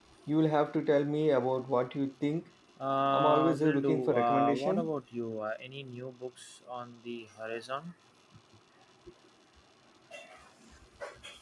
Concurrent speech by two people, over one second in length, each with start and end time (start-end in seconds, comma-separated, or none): 3.1-4.9